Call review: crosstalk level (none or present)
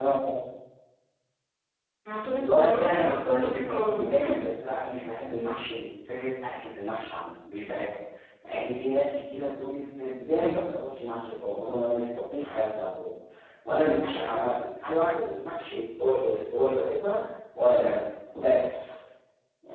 present